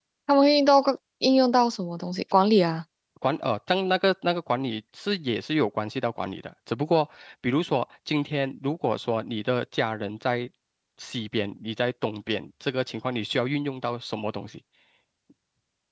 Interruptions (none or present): none